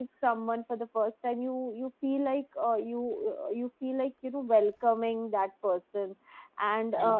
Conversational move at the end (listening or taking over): listening